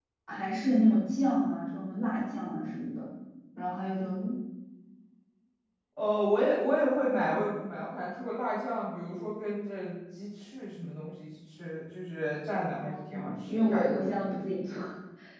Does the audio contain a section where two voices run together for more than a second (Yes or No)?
Yes